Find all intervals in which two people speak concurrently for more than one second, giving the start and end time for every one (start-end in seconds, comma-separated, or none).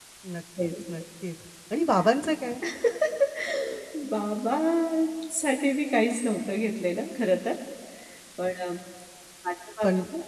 none